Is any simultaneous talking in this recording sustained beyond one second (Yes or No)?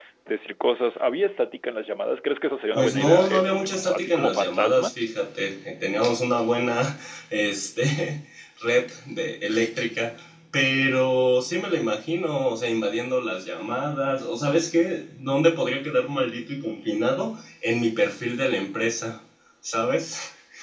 Yes